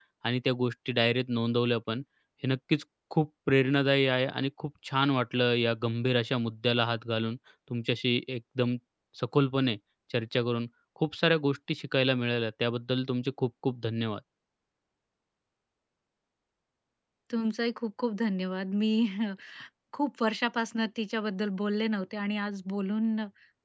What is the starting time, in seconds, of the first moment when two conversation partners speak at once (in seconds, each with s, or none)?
none